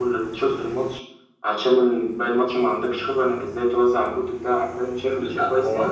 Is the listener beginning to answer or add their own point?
Yes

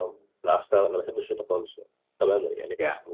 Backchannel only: Yes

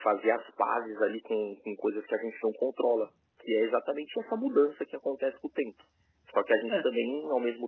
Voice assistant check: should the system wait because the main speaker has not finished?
Yes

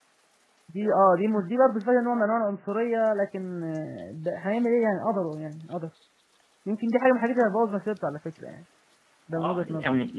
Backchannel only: No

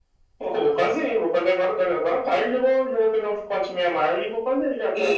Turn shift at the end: Yes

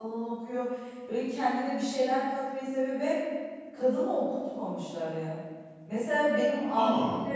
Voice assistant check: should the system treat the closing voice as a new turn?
No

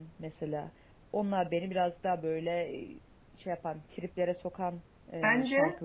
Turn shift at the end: Yes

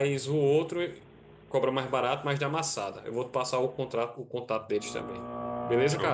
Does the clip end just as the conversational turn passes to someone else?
Yes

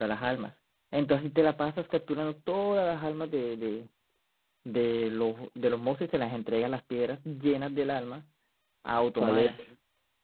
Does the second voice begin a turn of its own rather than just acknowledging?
Yes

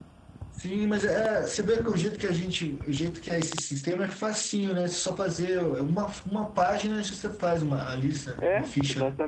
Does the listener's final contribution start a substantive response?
Yes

